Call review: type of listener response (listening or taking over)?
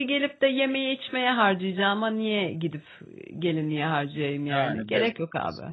taking over